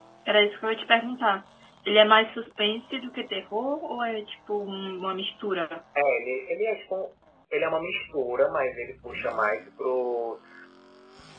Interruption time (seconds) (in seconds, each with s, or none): none